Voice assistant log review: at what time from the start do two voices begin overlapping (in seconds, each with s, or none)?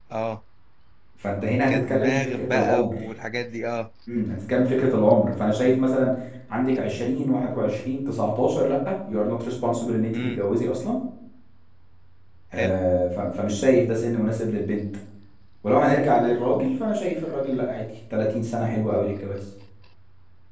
1.7 s